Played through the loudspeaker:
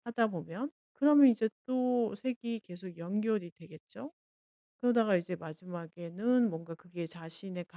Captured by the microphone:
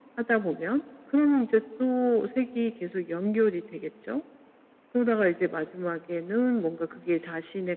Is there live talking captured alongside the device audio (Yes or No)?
No